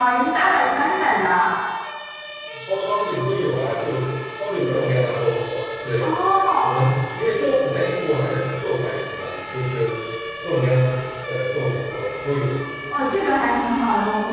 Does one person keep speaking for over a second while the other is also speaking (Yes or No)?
No